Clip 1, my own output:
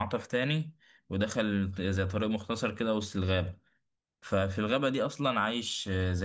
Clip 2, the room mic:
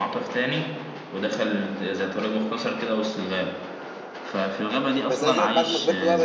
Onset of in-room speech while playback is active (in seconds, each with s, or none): 5.1 s